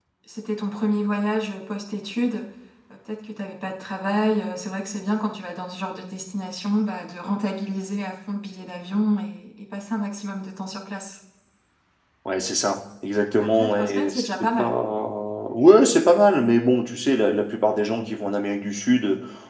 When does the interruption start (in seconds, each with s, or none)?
13.4 s